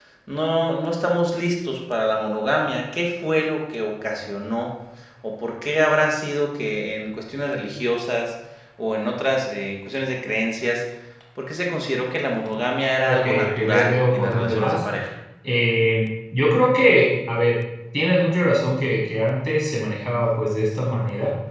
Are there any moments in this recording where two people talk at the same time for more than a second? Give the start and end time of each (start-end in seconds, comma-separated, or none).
13.1-14.8